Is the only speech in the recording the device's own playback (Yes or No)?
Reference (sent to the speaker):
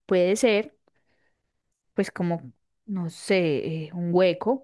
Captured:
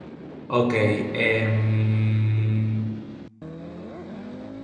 No